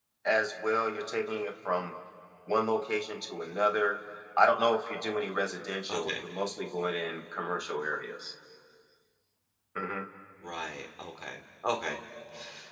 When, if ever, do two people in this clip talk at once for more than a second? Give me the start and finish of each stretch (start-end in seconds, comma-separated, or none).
none